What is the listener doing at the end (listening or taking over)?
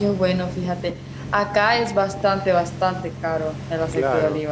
taking over